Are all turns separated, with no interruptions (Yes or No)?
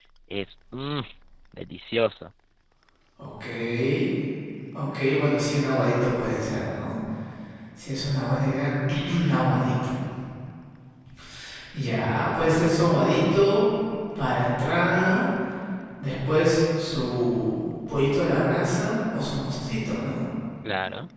Yes